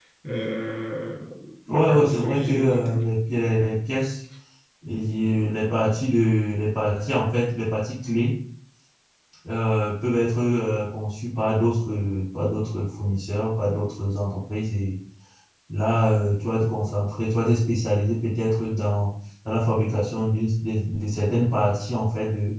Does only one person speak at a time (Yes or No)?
No